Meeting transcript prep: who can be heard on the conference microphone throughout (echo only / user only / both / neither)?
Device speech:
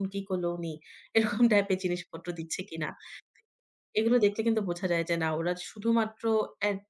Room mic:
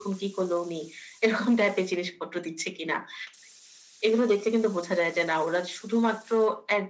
echo only